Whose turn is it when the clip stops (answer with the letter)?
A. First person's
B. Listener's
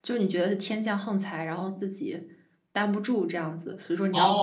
B